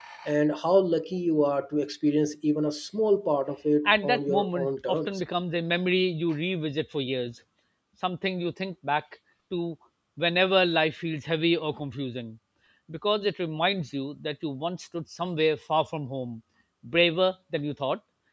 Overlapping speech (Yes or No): Yes